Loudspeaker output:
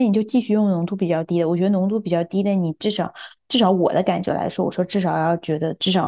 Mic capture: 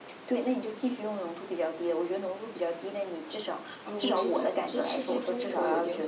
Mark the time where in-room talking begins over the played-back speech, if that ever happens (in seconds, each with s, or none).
3.8 s